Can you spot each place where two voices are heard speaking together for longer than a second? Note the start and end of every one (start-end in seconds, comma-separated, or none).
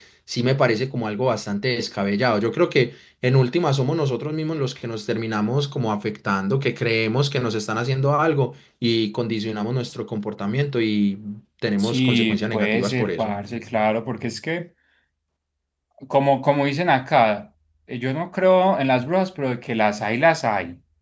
11.8-13.3